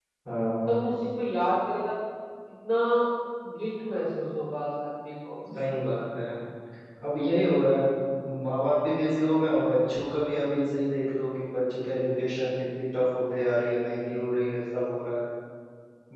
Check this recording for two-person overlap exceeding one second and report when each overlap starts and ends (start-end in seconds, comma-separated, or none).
none